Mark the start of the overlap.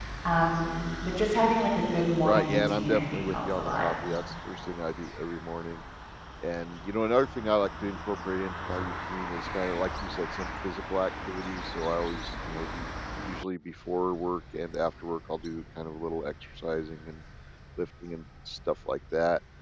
2.2 s

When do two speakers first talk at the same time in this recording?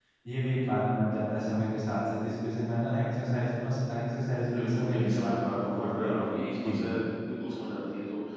4.4 s

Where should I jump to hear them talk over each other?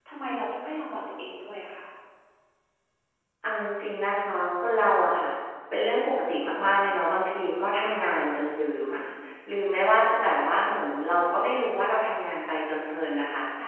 none

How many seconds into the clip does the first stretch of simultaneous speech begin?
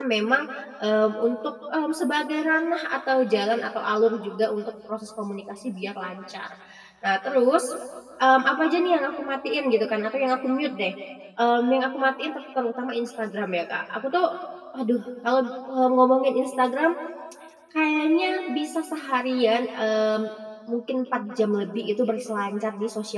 none

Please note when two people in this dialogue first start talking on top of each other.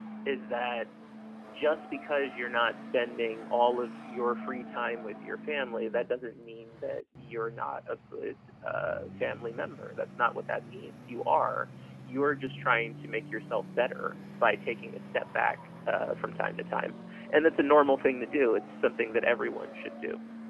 none

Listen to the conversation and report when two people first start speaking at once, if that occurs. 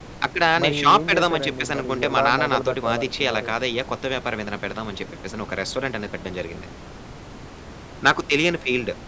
0.6 s

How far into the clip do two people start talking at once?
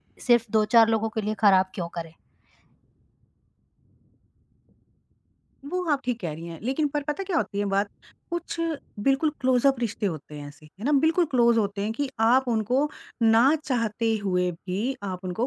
none

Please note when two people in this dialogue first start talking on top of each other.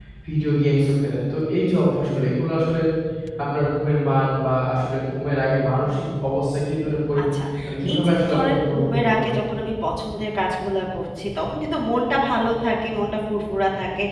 7.9 s

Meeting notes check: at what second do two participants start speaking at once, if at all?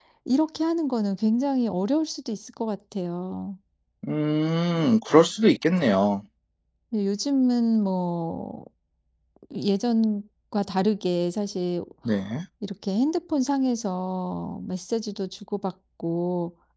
none

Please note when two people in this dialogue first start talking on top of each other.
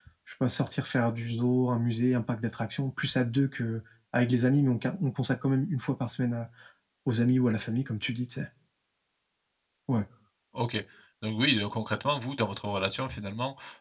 none

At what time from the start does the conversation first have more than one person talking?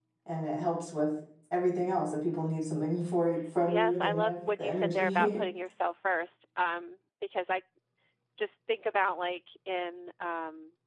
3.6 s

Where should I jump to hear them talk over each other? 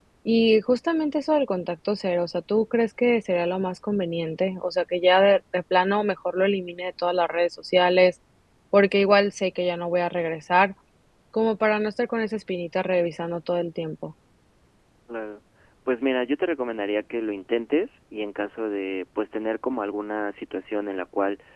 none

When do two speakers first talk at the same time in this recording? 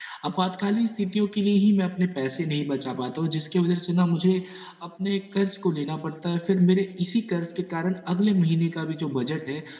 none

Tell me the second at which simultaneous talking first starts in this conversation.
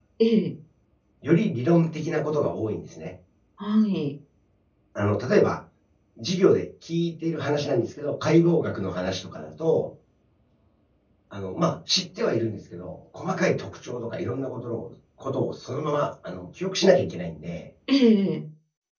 none

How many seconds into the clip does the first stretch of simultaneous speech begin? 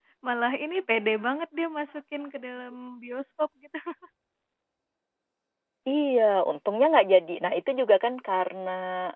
none

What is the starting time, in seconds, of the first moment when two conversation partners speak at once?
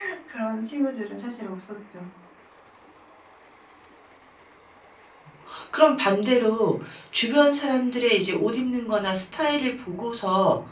none

